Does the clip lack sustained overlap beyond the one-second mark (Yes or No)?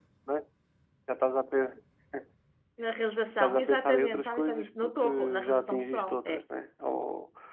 No